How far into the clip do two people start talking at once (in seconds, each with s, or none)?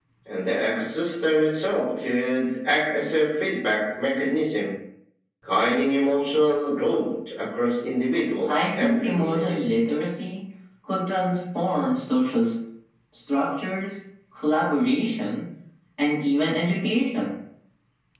8.4 s